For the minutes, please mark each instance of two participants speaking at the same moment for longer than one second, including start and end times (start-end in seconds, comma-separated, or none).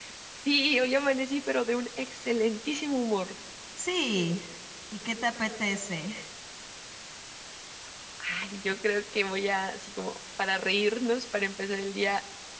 none